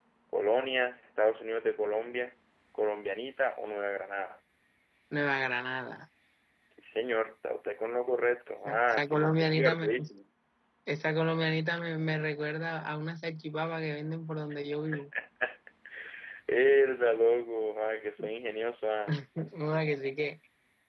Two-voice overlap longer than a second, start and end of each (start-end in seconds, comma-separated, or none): 8.6-9.9